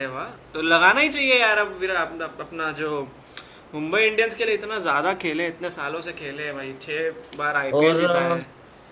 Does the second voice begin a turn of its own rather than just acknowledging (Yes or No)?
Yes